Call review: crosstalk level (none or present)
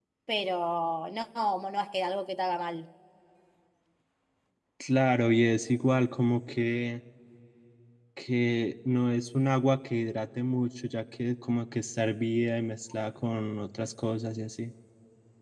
none